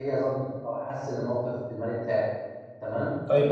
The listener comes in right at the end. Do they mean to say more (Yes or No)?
Yes